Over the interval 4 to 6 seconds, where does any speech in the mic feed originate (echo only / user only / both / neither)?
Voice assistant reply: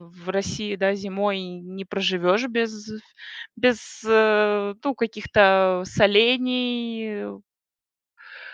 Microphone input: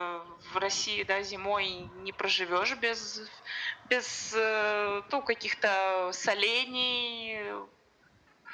echo only